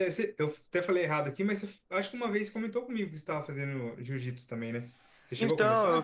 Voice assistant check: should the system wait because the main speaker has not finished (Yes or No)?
No